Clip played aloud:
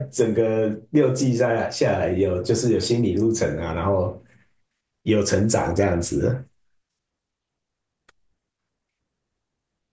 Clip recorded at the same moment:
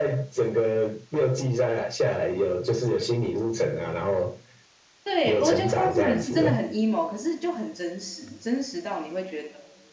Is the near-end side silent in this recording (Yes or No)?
No